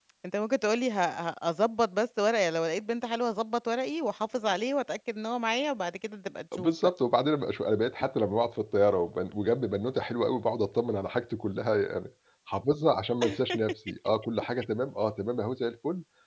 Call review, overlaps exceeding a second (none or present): none